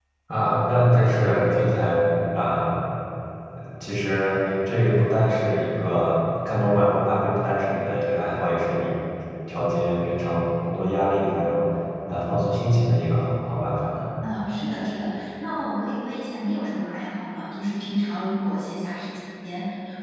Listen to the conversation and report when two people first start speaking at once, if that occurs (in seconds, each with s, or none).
none